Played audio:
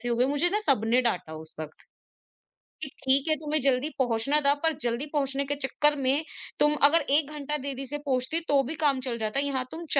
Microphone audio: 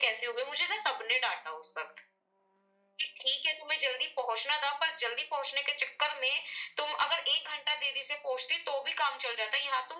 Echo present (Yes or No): Yes